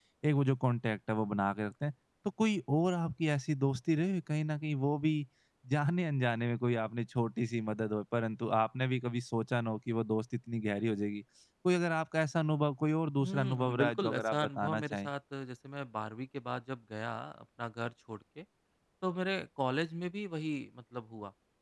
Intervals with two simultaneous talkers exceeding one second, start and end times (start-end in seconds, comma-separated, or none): 13.2-15.1